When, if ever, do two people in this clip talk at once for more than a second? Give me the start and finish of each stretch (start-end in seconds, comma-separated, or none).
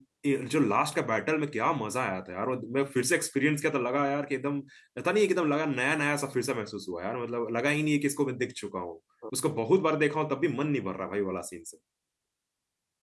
none